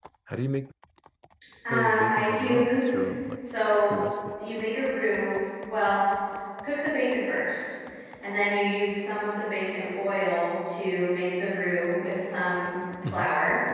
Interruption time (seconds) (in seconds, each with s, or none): 1.7 s